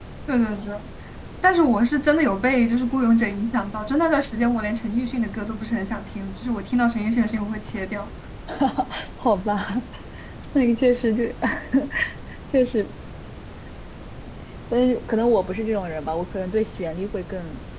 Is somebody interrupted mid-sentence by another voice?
No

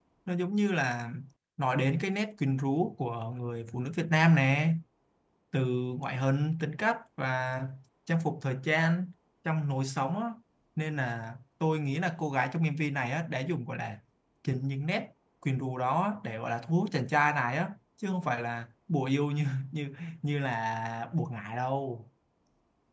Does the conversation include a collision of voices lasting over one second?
No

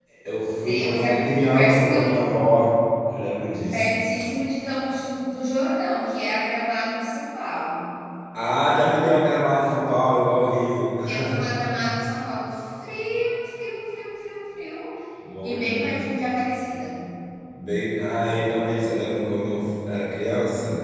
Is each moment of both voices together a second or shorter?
No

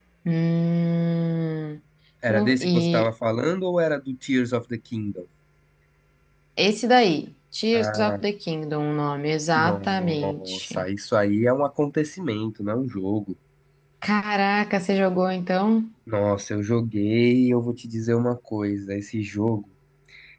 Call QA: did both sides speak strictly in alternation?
No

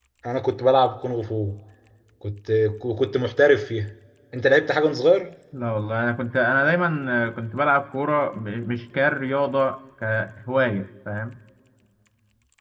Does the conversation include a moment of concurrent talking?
No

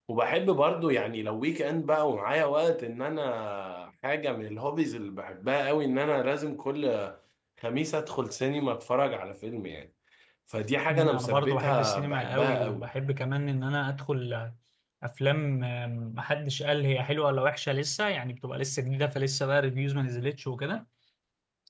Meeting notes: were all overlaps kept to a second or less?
No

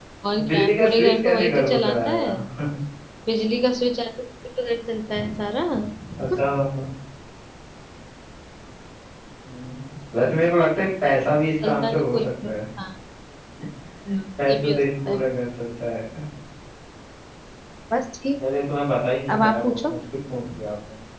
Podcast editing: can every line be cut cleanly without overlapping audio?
No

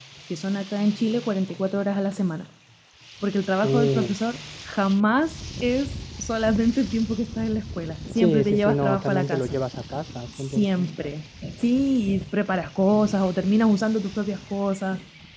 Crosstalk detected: Yes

